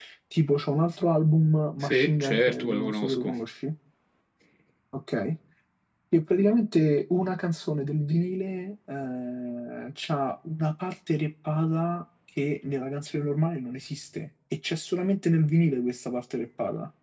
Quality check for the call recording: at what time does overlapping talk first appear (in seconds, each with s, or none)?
1.8 s